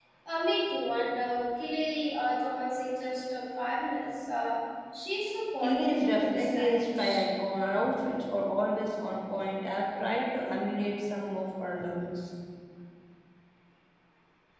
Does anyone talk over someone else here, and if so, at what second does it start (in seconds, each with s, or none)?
5.6 s